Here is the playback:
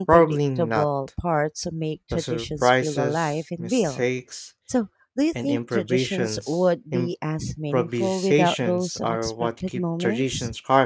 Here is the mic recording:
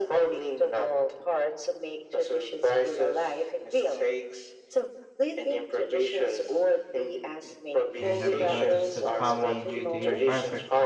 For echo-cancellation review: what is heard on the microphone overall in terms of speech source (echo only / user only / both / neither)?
both